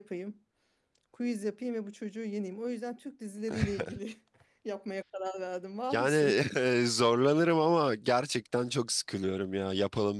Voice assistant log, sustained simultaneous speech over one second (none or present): none